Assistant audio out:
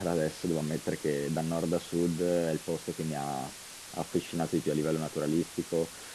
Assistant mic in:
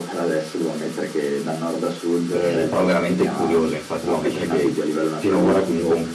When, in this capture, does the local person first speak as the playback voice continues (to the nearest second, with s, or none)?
2 s